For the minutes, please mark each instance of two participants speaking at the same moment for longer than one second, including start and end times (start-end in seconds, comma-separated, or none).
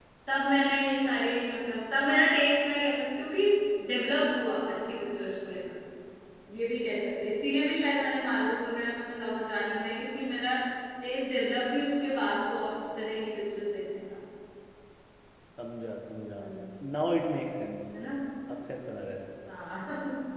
none